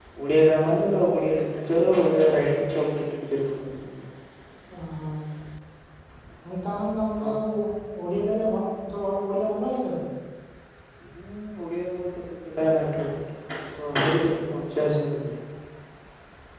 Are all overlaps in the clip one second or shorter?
Yes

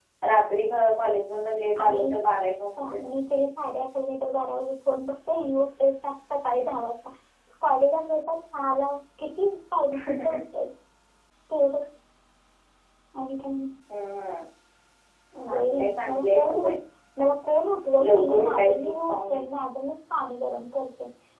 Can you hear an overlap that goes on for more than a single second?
Yes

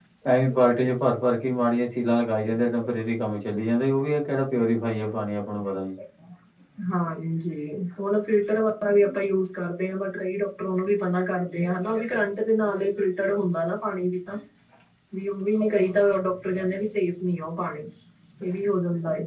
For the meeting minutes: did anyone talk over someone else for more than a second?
No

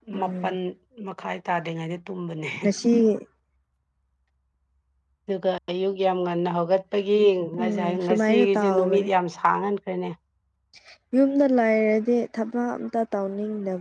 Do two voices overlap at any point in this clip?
Yes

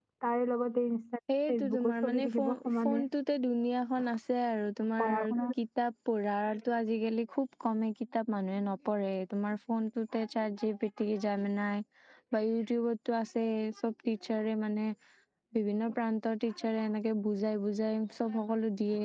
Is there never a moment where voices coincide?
No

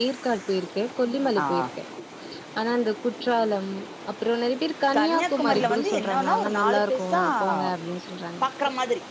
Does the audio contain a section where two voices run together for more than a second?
Yes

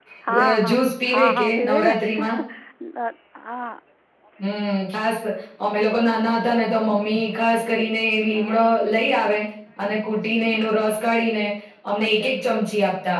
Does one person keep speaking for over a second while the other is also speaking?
Yes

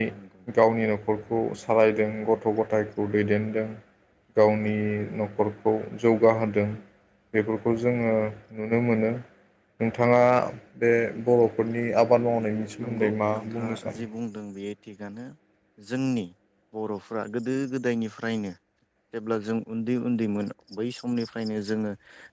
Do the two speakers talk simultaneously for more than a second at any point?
Yes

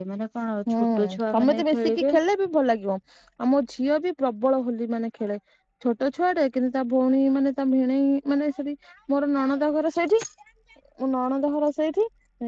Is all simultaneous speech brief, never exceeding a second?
No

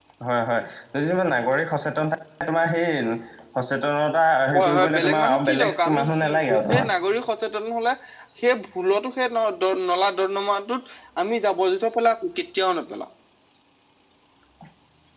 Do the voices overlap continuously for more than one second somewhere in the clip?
Yes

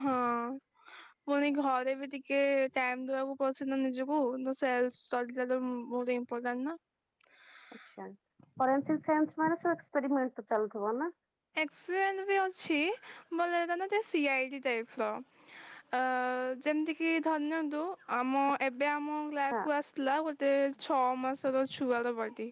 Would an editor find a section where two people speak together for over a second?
No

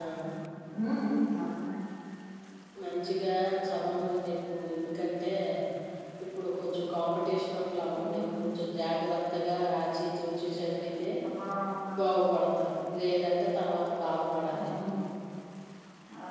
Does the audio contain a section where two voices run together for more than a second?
No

